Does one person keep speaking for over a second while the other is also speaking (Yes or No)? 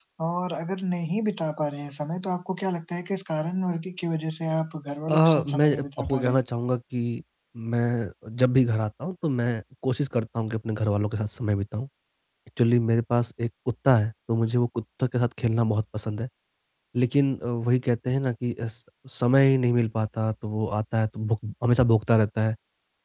Yes